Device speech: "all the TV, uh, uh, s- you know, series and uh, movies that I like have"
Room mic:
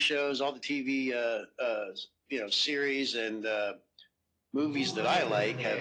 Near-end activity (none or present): present